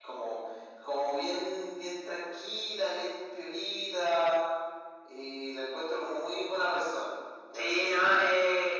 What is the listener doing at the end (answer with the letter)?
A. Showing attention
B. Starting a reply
B